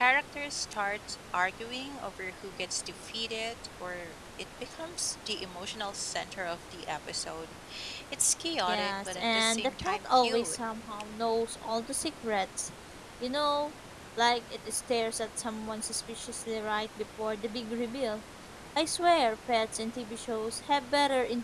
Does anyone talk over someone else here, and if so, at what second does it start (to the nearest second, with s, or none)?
9 s